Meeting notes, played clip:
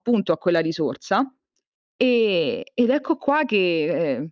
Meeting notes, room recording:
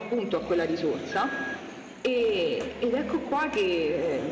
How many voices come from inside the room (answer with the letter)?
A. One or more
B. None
B